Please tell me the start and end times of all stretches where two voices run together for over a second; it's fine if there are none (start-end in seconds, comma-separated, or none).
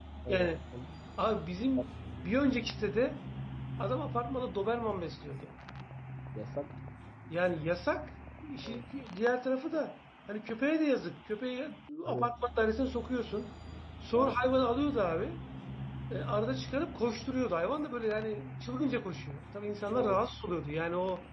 none